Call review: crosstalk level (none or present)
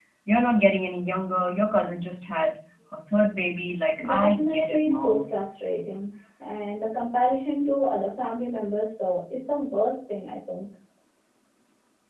present